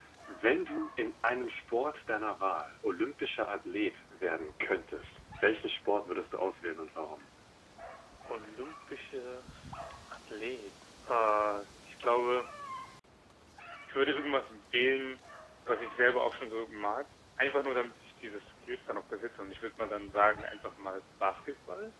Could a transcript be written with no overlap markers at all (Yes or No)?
Yes